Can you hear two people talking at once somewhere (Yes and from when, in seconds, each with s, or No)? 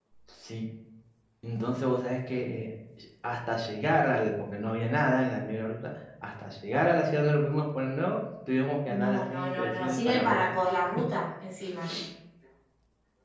Yes, from 9.0 s